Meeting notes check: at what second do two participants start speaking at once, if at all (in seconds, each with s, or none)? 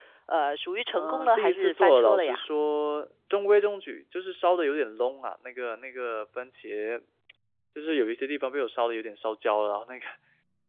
0.9 s